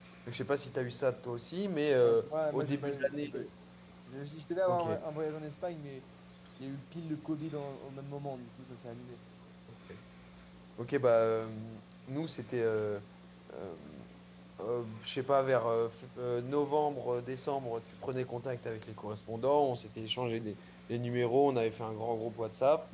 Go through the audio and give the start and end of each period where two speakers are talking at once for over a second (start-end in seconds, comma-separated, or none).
2.0-3.3